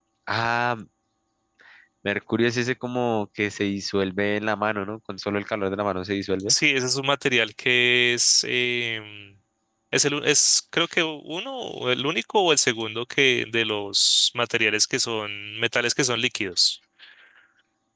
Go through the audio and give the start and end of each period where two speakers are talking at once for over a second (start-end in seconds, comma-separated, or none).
none